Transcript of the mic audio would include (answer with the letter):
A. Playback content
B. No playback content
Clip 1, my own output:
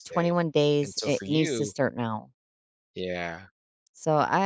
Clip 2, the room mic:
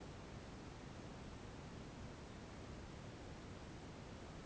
B